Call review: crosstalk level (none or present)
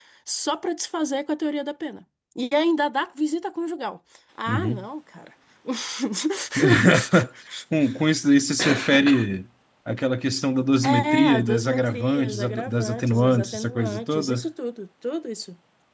present